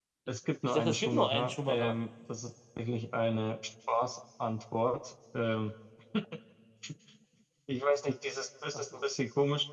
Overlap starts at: 0.6 s

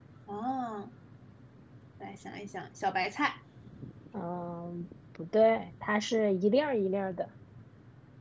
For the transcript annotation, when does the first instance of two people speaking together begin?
none

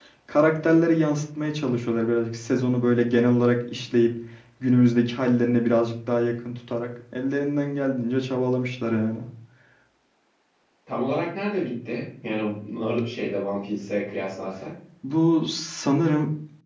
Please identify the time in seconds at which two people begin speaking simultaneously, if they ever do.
none

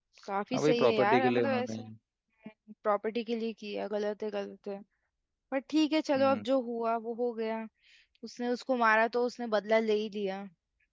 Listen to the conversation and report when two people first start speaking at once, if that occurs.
0.5 s

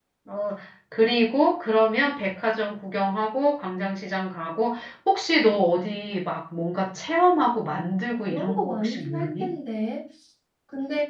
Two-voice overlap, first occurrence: 8.2 s

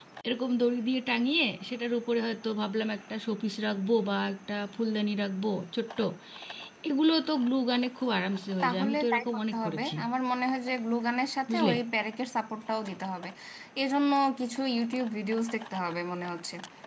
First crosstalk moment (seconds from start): 8.6 s

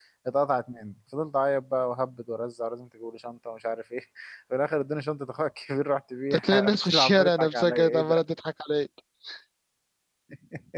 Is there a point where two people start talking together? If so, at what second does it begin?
6.3 s

